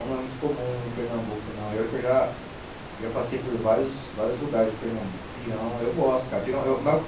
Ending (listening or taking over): listening